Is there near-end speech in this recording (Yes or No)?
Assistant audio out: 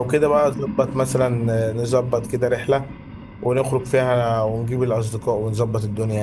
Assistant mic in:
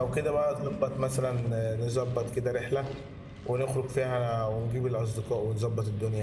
No